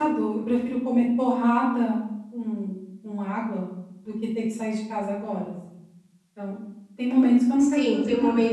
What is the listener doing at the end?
taking over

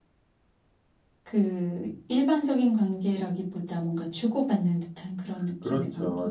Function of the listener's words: taking over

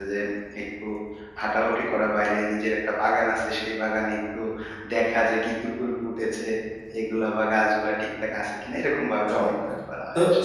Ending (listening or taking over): taking over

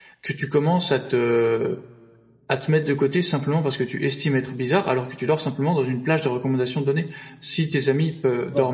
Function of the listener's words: listening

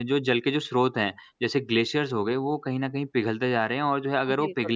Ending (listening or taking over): listening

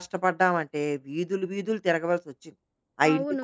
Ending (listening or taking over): taking over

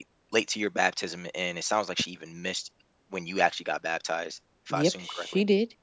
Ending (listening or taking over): taking over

